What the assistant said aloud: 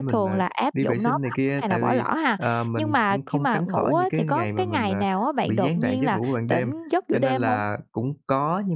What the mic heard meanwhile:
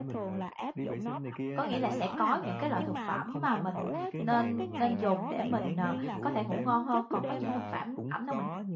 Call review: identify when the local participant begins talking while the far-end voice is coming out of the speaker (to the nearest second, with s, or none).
2 s